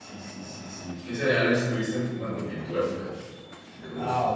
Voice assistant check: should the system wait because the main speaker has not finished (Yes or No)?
No